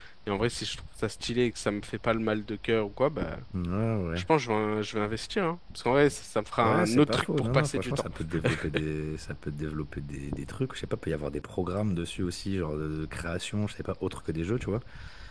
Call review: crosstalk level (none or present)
present